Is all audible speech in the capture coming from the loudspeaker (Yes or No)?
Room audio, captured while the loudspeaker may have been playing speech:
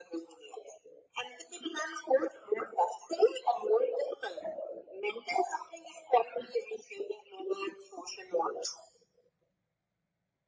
Yes